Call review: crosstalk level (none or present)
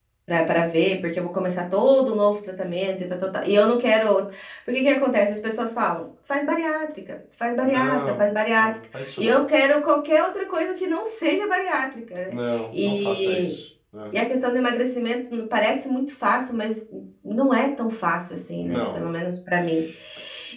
present